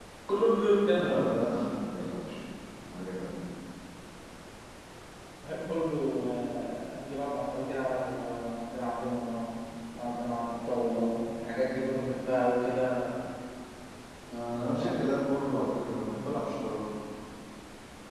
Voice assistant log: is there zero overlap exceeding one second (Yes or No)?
Yes